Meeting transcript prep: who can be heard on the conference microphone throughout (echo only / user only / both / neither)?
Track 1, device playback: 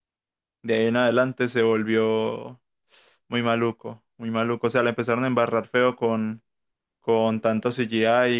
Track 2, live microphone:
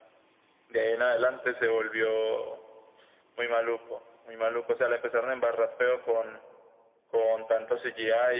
echo only